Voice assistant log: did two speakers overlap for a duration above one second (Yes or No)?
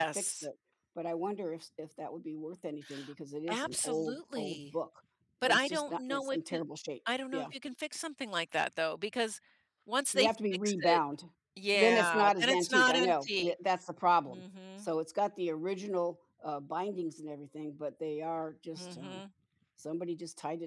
Yes